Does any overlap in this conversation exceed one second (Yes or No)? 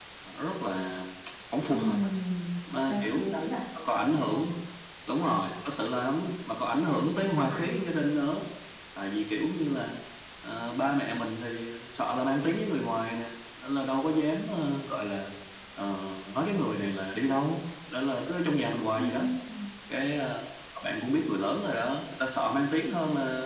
No